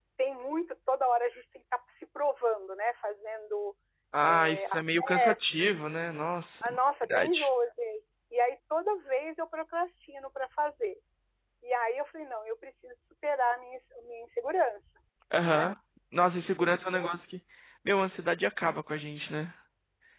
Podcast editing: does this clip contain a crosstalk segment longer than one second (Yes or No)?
Yes